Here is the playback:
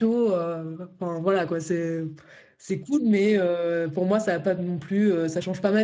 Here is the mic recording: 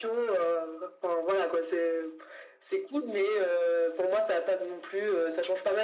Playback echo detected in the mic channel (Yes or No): Yes